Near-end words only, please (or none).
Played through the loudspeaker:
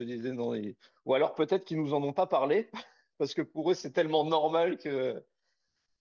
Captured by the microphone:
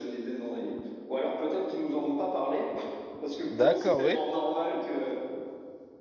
D'accord, oui.